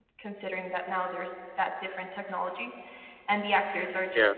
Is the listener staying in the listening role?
Yes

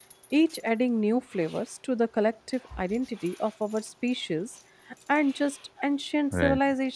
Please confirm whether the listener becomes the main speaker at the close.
No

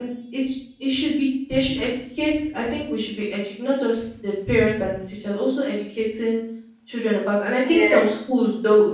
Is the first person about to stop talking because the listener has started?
No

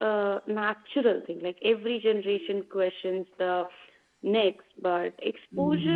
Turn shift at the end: No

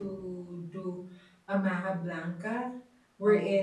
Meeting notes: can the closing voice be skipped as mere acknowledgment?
Yes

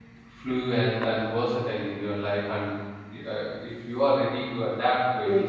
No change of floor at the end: No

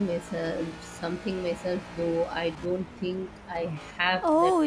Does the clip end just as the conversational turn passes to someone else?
Yes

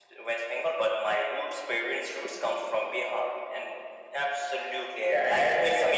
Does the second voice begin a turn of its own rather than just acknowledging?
Yes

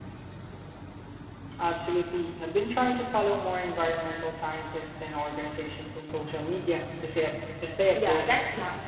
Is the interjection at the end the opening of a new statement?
Yes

